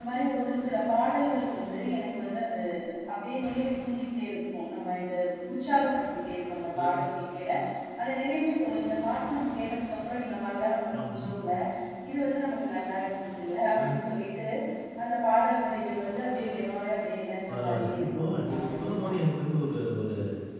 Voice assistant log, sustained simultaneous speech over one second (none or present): present